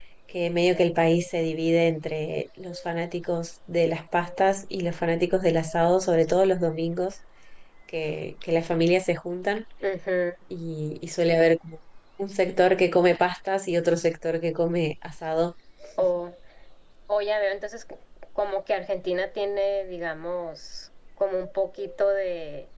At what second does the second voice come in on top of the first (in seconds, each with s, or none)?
none